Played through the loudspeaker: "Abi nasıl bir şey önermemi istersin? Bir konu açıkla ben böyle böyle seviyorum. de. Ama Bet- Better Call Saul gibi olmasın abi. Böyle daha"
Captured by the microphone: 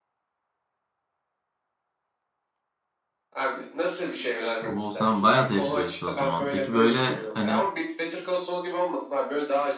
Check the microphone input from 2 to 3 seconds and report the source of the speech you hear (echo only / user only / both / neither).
neither